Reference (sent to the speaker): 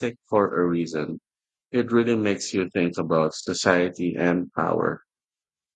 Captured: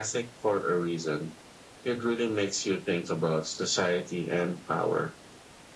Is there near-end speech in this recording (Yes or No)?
No